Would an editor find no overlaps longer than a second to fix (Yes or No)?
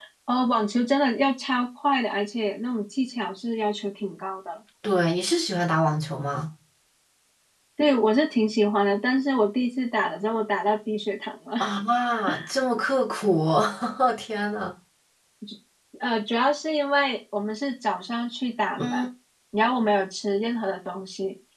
Yes